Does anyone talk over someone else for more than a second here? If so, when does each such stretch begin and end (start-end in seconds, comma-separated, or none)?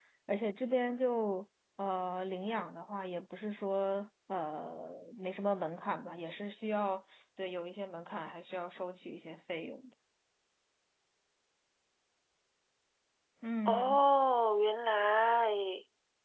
none